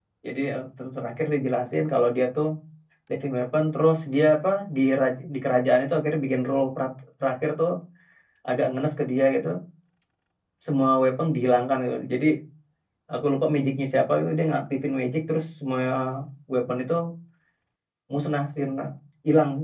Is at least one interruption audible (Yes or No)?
No